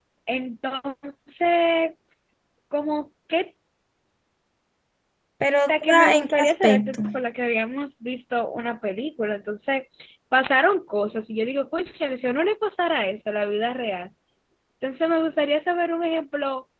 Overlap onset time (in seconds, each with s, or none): 5.6 s